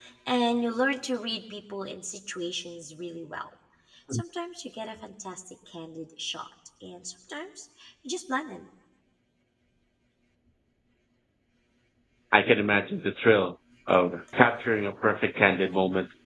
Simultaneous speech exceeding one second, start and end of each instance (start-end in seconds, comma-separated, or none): none